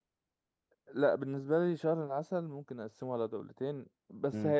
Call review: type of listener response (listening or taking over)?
listening